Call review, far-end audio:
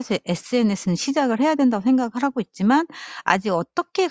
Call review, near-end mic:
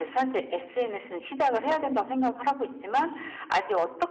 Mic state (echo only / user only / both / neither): echo only